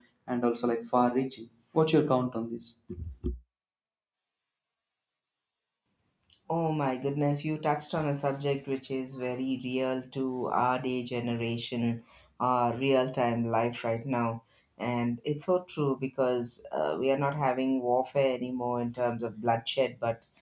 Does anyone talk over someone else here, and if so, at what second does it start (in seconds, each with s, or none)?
none